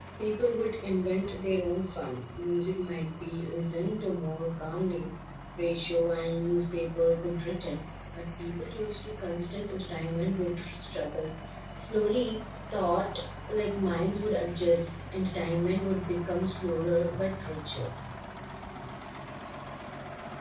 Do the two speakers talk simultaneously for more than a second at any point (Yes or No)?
No